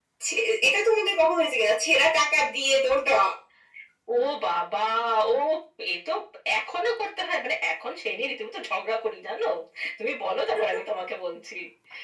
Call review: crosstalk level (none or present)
none